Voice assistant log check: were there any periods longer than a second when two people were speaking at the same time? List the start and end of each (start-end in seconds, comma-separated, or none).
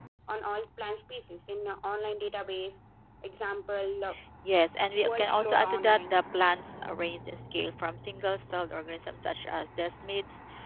4.9-6.2